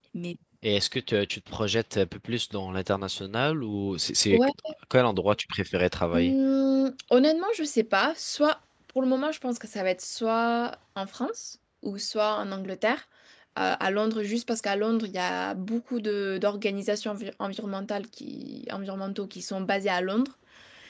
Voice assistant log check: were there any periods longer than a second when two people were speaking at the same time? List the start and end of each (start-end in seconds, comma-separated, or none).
none